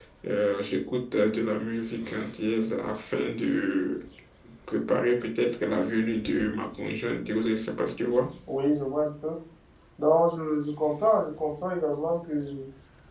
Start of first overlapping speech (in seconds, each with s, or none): none